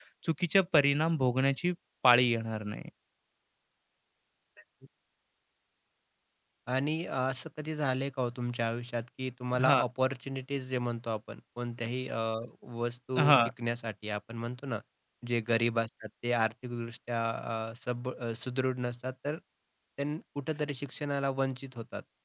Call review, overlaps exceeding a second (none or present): none